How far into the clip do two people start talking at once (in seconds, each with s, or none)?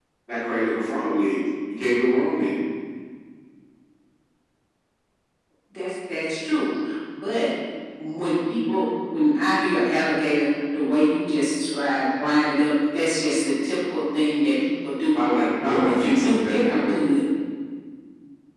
15.6 s